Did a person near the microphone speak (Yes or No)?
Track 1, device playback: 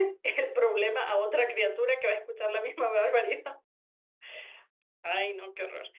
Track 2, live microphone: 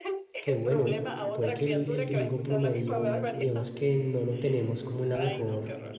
Yes